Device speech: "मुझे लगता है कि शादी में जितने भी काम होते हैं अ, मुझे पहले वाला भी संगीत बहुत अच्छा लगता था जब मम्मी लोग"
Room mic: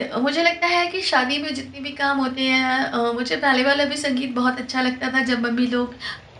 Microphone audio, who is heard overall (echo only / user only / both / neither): echo only